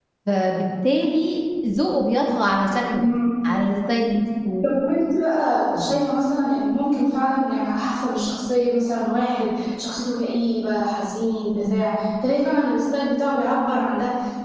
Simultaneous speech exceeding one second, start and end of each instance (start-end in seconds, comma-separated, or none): none